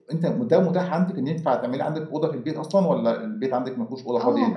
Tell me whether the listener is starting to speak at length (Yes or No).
Yes